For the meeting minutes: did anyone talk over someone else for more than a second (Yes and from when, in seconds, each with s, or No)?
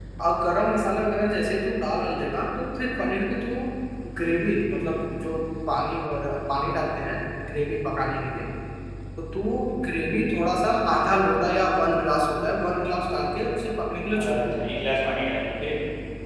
No